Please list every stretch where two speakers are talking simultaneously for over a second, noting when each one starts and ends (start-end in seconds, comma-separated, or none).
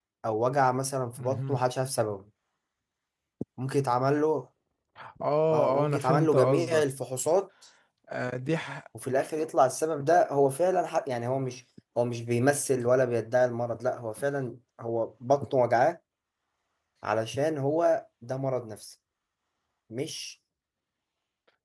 5.5-6.8